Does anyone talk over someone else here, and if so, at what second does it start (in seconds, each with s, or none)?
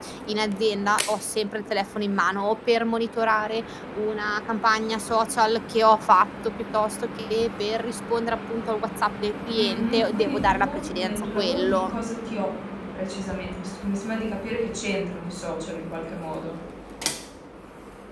9.6 s